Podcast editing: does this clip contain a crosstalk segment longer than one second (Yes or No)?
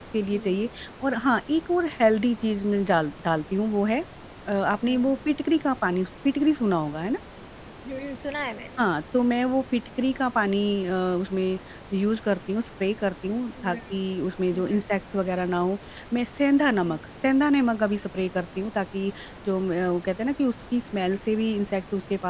No